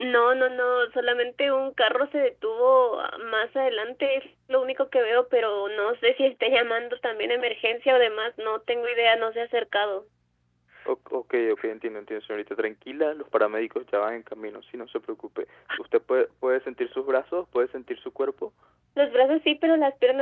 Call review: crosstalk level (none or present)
none